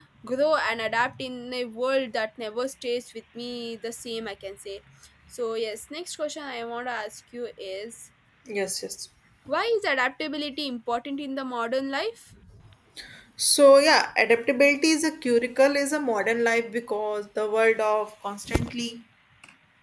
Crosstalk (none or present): none